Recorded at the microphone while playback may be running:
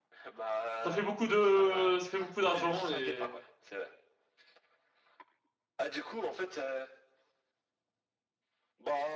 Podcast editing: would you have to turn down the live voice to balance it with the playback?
Yes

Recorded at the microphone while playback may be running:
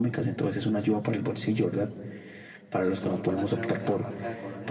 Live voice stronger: No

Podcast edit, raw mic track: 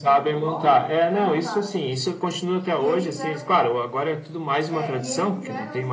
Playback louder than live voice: Yes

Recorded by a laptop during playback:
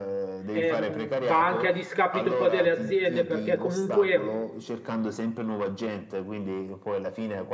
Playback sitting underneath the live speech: Yes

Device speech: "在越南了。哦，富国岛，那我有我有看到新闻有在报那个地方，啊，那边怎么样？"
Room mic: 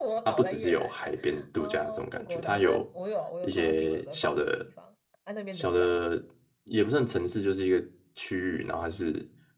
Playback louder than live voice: No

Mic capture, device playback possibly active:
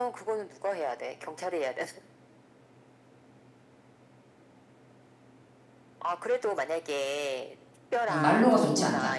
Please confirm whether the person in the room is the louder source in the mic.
Yes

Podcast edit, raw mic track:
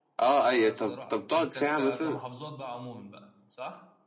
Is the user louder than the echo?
No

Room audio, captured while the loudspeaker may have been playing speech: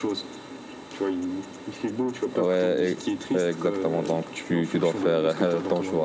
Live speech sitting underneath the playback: No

